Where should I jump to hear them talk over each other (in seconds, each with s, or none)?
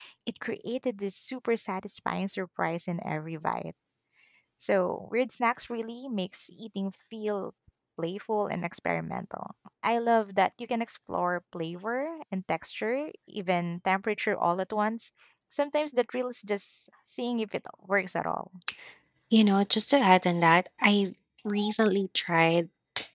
none